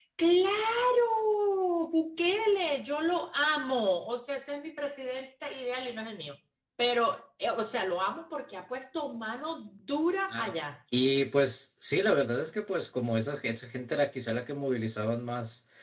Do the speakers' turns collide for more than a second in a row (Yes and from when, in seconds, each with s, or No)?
No